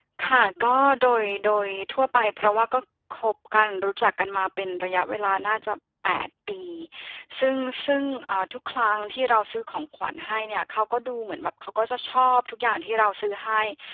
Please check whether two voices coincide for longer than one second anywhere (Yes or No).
No